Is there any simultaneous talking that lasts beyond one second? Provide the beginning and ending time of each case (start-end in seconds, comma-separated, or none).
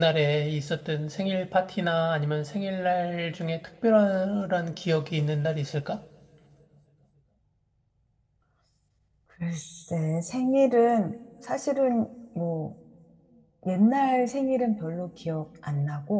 none